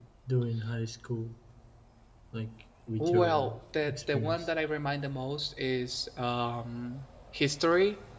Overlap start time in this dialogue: 3 s

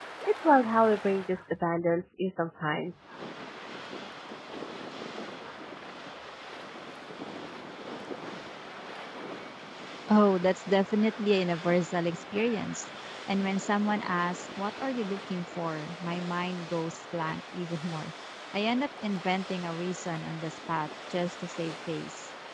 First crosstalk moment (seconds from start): none

